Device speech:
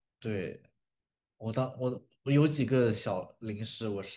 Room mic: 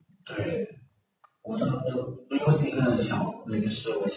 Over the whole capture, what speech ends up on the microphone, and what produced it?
echo only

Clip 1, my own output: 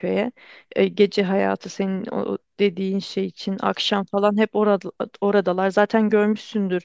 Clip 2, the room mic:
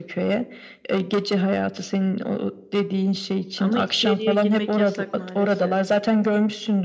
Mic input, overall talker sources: both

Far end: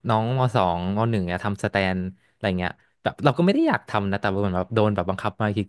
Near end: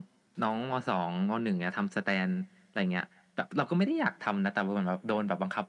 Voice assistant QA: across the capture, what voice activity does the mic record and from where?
echo only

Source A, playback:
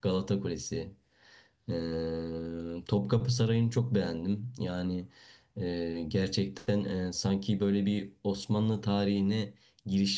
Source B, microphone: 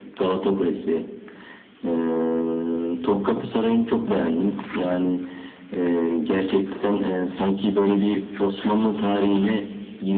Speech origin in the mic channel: echo only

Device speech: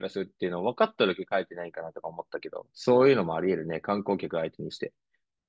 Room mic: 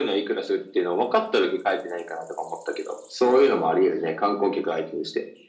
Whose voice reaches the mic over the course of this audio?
echo only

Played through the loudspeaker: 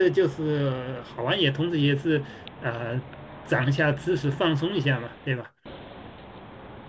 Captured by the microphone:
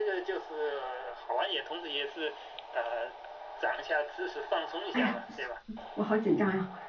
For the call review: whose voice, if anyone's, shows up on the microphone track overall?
both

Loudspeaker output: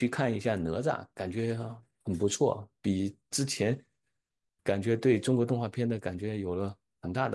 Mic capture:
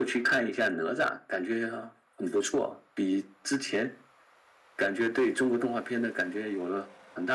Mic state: echo only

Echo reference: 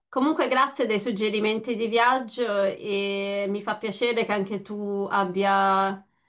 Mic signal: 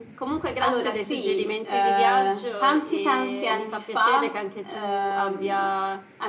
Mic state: both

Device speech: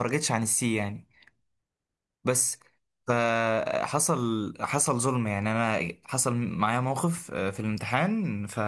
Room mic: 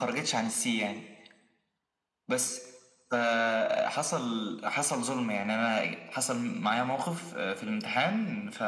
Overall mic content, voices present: echo only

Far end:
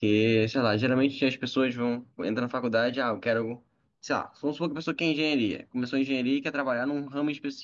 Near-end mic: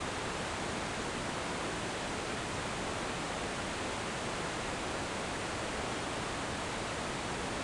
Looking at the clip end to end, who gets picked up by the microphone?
neither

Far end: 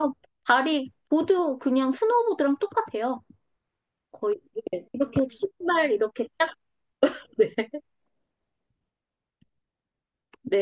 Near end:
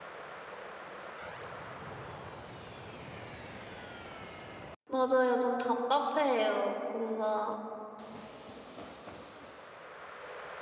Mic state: user only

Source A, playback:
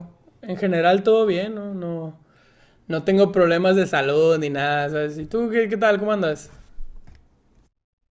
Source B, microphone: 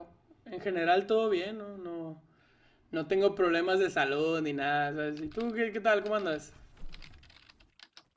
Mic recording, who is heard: echo only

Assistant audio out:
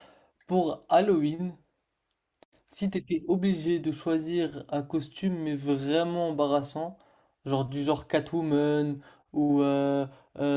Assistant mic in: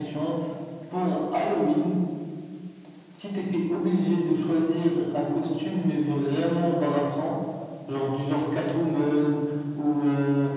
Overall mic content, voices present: echo only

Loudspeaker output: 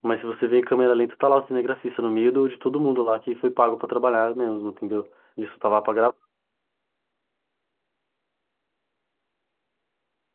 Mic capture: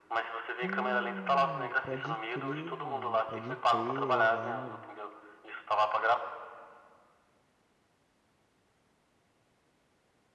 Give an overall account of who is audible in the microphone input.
both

